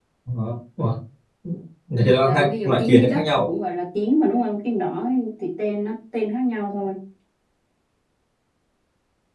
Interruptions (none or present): present